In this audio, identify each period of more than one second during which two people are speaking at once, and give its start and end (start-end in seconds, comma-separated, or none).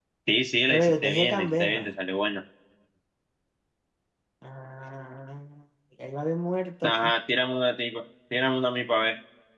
0.7-1.9